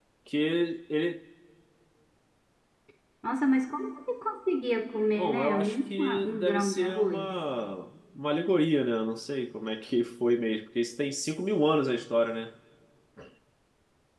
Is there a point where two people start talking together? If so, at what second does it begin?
5 s

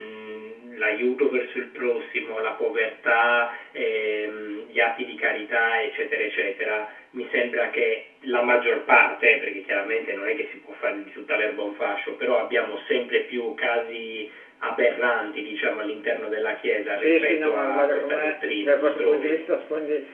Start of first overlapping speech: 17 s

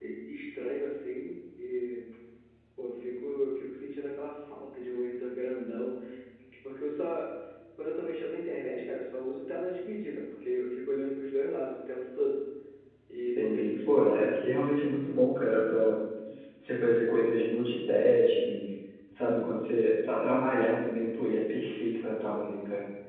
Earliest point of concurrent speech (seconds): 13 s

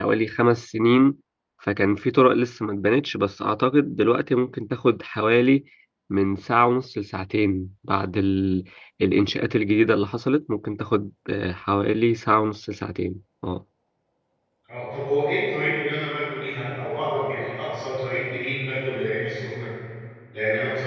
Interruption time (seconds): none

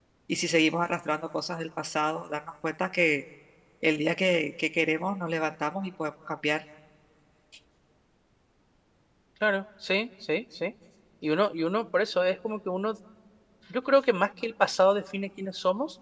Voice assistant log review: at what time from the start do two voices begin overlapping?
none

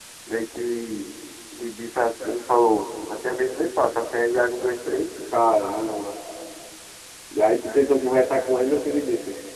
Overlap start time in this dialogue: none

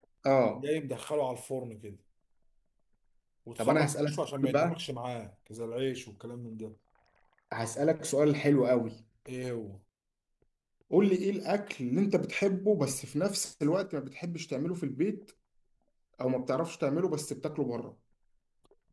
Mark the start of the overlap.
4 s

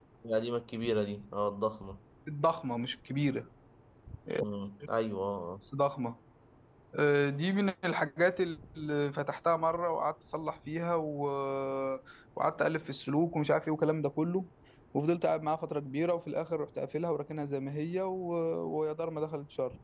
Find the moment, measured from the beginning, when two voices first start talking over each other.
none

